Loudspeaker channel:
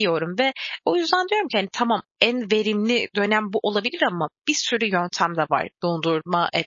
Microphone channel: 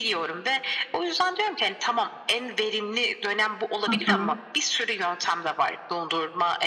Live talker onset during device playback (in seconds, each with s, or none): 3.9 s